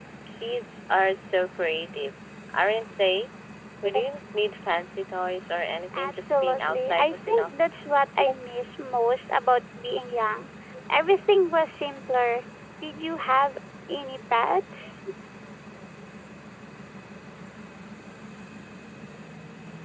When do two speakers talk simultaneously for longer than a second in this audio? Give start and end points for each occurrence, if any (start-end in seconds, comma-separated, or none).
6.0-7.5